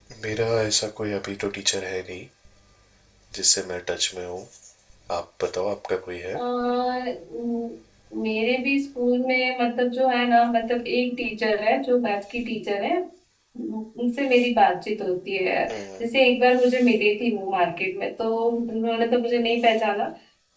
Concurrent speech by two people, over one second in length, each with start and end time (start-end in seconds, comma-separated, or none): none